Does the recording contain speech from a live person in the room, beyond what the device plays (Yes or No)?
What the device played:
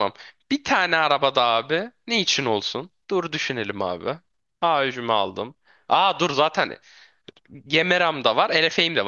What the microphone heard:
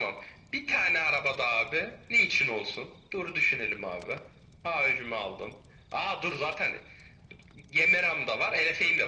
No